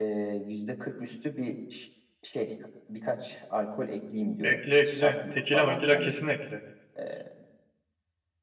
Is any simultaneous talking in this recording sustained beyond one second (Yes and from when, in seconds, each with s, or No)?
Yes, from 4.4 s